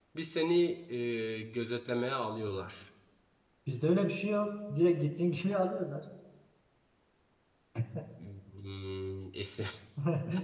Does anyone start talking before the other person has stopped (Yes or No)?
No